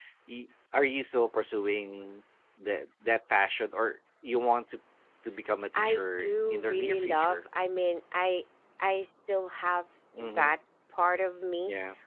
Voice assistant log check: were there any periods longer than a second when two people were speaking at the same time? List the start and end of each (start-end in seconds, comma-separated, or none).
5.8-7.4